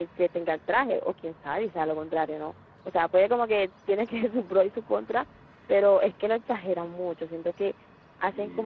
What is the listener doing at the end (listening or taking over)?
listening